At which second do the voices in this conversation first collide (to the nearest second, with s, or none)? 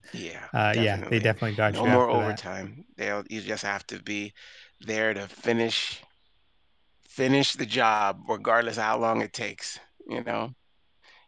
1 s